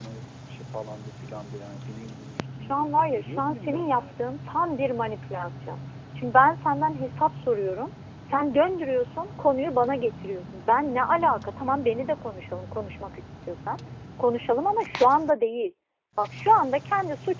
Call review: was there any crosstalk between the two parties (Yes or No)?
Yes